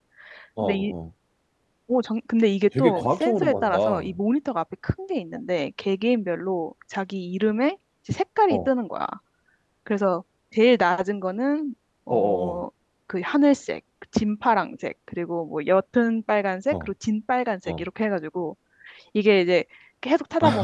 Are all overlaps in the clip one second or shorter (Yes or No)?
No